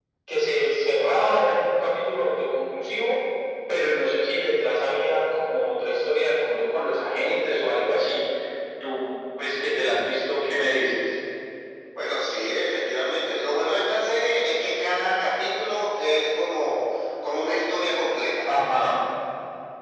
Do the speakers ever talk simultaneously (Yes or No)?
No